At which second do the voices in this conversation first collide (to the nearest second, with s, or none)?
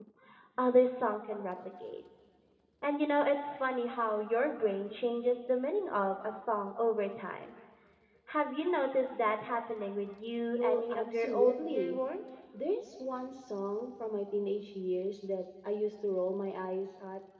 10 s